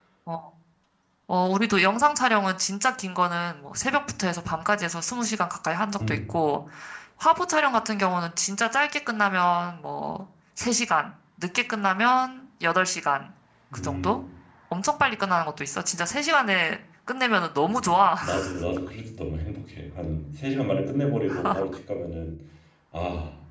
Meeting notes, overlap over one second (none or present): none